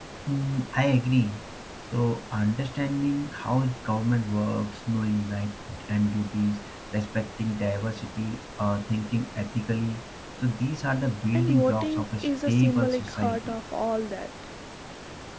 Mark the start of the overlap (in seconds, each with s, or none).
11.3 s